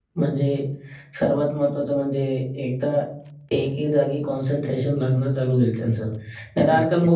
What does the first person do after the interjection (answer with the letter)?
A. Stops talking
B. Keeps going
B